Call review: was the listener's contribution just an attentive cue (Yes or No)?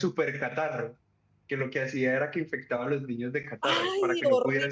No